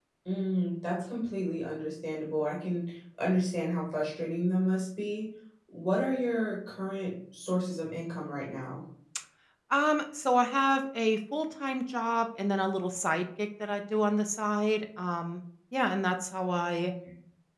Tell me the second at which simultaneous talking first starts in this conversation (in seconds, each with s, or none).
none